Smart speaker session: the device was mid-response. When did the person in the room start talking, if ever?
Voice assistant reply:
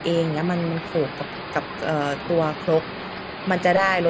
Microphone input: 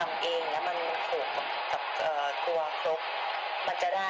none

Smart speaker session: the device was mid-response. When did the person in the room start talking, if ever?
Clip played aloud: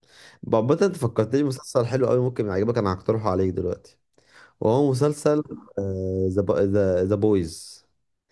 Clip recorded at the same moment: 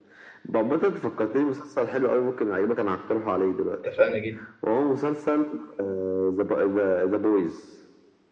3.8 s

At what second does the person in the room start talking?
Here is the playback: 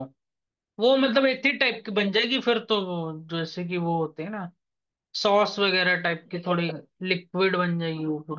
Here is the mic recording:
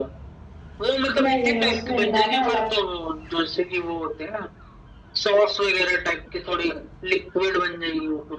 1.2 s

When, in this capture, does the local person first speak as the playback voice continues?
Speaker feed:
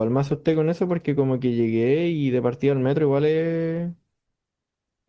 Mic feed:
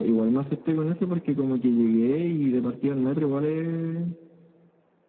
none

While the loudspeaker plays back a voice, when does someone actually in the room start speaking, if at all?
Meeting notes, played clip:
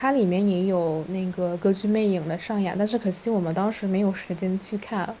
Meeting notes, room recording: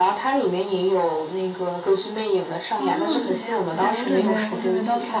2.7 s

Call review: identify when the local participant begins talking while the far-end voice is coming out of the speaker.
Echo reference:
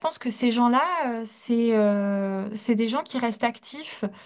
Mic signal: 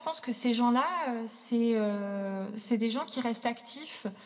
none

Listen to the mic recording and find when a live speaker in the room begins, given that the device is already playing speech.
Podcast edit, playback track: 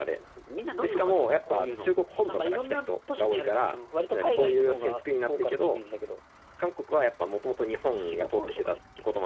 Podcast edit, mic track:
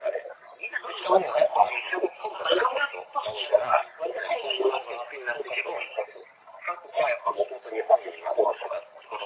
none

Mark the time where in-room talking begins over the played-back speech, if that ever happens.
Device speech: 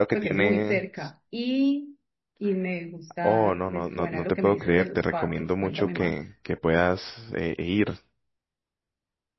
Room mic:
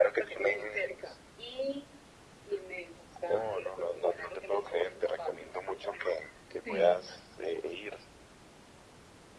6.6 s

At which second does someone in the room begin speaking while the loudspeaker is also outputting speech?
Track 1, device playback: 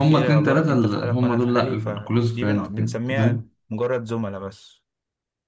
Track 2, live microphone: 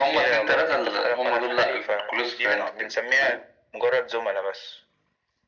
none

